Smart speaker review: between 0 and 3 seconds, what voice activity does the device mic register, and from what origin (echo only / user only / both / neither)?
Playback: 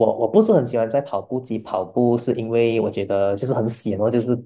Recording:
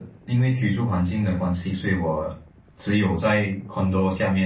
user only